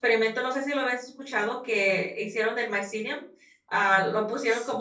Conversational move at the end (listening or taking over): listening